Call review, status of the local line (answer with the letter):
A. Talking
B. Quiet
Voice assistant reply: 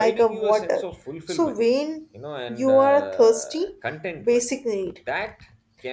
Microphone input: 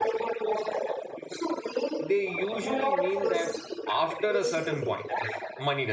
A